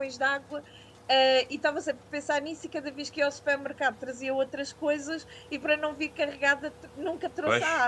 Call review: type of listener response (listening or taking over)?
taking over